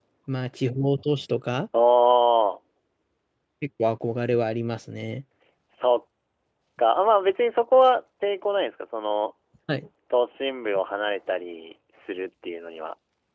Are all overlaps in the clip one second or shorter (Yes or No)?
Yes